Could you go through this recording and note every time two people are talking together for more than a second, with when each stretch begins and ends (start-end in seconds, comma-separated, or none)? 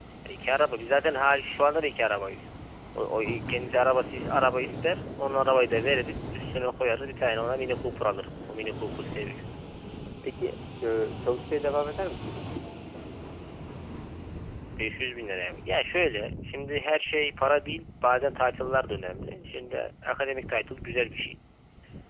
none